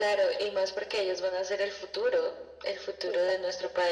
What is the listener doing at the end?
listening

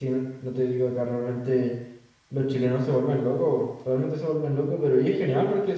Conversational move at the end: listening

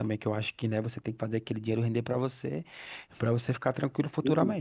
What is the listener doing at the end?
taking over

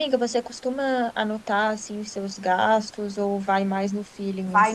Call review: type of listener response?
taking over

